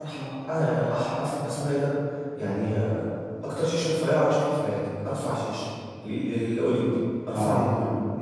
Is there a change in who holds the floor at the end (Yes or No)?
Yes